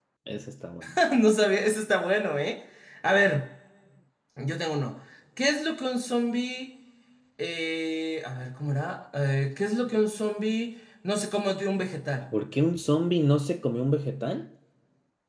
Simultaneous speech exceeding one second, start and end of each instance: none

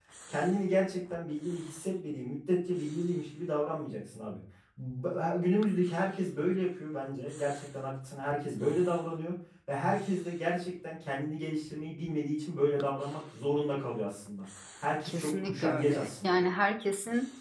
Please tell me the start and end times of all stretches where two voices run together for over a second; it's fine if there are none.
15.0-16.4

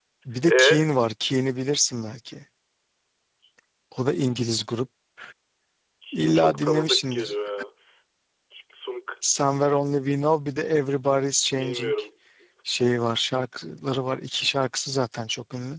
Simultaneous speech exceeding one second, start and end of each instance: 6.1-7.3

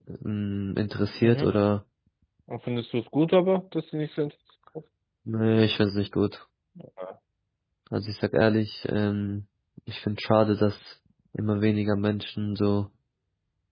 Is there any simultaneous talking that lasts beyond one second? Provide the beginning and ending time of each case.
none

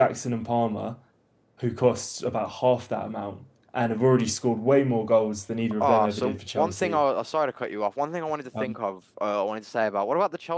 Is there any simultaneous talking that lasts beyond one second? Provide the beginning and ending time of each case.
5.8-7.0

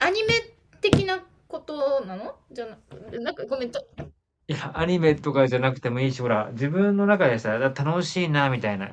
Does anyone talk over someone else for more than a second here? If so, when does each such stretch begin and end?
none

